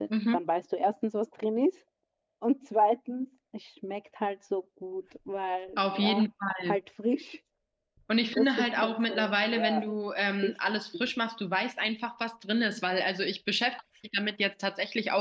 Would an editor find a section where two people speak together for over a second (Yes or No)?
Yes